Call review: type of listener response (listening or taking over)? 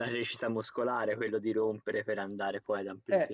taking over